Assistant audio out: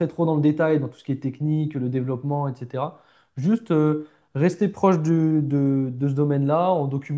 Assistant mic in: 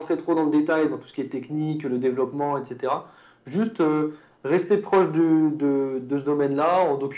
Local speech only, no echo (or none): none